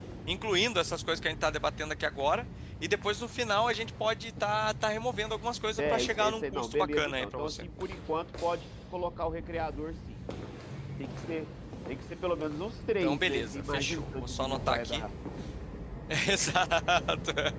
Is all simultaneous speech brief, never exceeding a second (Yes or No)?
No